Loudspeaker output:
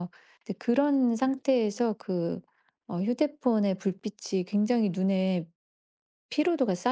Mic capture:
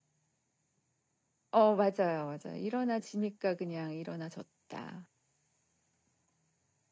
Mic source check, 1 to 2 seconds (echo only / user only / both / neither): user only